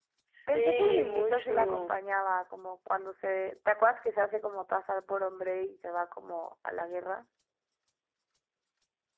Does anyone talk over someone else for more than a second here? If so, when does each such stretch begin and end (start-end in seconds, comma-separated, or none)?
0.5-1.9